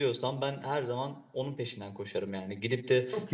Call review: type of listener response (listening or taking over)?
listening